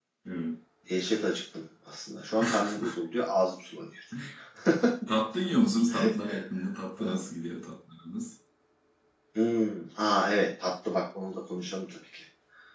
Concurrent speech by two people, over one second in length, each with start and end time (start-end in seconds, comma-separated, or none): none